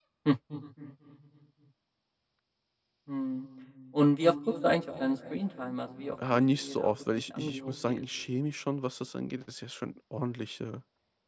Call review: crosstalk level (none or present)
present